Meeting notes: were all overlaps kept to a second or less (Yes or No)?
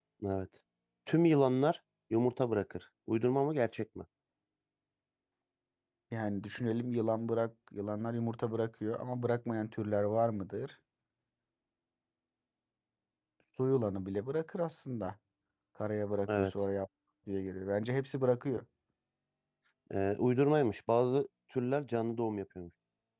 Yes